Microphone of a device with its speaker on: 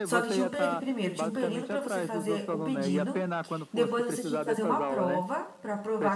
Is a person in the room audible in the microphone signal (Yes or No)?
Yes